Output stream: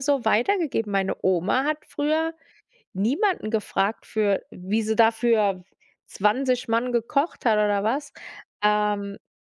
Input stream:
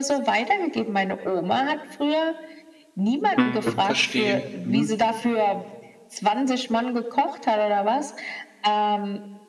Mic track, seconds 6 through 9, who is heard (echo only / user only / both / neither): echo only